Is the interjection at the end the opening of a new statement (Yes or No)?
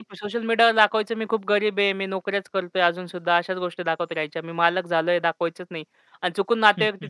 No